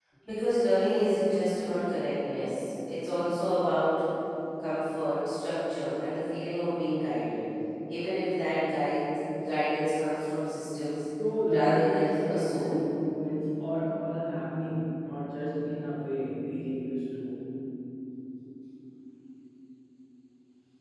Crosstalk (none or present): present